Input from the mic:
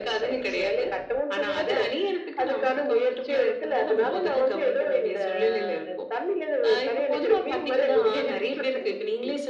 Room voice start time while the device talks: none

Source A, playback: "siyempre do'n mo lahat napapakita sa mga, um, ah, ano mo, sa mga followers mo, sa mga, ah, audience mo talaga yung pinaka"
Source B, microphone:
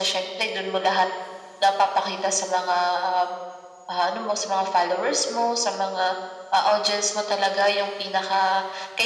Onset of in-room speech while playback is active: none

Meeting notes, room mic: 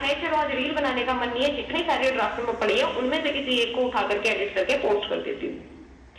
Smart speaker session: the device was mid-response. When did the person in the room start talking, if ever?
none

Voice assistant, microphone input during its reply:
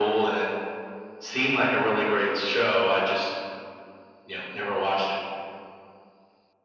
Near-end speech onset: none

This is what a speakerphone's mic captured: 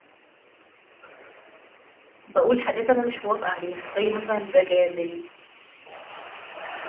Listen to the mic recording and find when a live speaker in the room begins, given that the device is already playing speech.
2 s

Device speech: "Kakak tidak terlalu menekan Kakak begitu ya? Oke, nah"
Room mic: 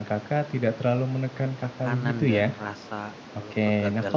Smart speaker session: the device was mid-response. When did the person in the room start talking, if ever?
2 s

